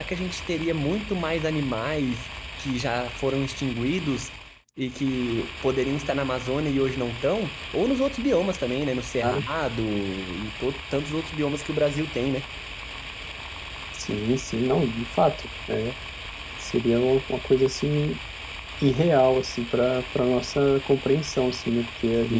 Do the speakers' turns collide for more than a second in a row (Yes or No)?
No